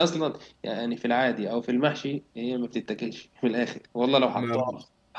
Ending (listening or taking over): listening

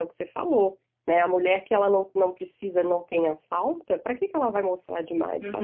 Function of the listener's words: taking over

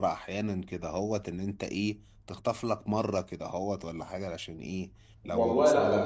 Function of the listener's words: taking over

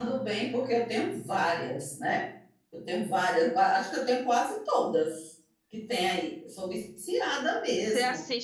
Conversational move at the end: taking over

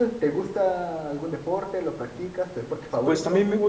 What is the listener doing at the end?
taking over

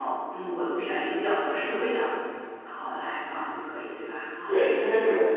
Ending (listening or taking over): taking over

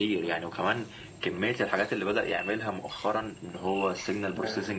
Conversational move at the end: listening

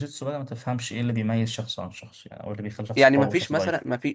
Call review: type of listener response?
taking over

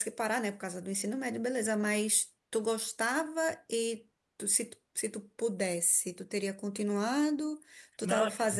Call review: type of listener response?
listening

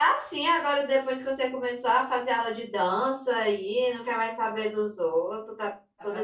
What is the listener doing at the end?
taking over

